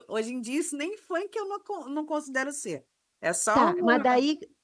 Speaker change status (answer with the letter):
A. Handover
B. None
A